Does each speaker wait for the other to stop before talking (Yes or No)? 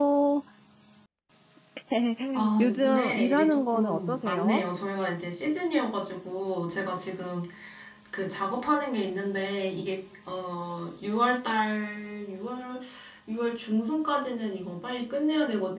No